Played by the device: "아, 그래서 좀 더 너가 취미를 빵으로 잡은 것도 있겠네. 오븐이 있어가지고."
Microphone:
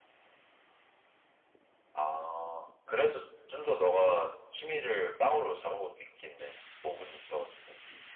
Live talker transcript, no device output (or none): none